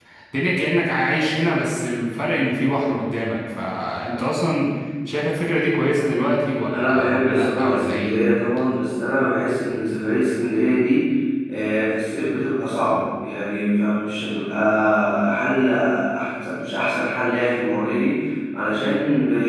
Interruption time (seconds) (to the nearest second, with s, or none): 7 s